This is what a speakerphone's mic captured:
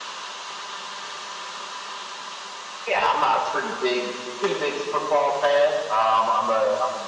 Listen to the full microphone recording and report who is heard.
echo only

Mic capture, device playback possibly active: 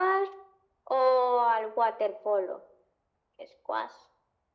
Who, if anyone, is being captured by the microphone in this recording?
echo only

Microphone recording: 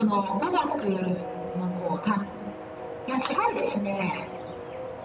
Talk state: echo only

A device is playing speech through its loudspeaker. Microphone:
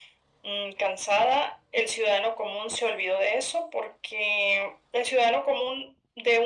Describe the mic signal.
echo only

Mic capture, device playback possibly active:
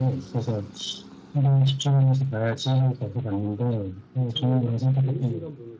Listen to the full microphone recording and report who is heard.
both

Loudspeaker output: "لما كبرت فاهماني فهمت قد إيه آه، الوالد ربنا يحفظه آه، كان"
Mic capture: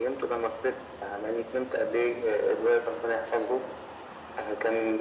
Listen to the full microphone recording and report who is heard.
echo only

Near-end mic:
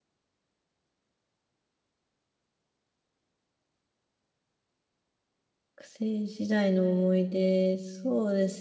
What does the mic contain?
user only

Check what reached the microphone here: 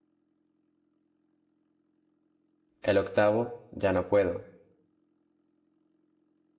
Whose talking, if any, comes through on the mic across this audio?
user only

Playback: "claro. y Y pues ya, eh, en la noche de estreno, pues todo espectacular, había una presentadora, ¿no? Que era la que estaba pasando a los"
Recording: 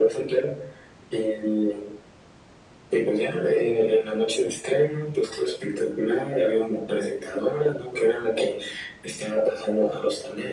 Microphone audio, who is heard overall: echo only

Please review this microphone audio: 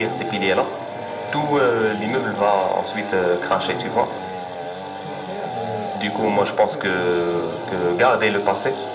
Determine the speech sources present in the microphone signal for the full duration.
both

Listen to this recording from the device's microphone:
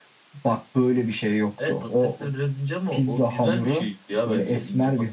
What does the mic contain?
echo only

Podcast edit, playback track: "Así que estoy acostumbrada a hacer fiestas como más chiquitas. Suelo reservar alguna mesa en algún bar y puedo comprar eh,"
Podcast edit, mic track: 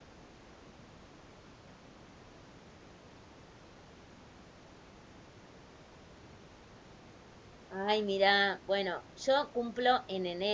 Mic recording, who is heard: user only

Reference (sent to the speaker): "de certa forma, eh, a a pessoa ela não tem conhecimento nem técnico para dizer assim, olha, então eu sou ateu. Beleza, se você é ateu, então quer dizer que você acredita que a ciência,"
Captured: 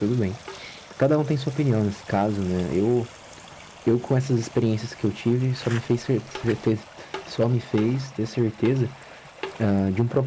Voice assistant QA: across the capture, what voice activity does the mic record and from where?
user only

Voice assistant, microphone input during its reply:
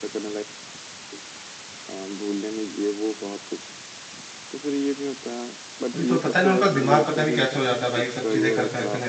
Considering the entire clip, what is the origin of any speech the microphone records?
both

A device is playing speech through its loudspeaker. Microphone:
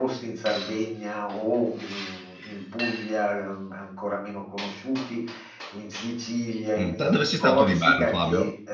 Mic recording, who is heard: both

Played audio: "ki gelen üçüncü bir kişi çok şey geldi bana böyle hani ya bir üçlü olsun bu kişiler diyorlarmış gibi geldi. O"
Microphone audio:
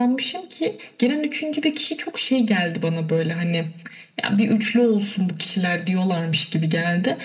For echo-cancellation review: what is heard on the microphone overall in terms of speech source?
echo only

